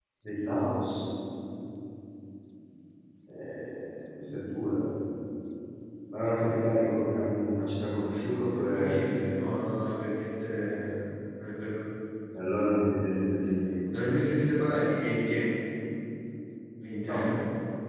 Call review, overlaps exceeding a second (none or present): none